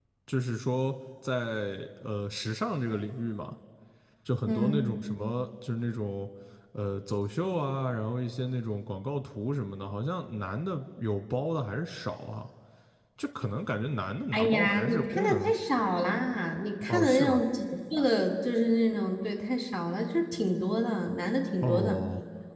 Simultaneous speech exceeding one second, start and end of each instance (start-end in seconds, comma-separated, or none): 14.3-15.5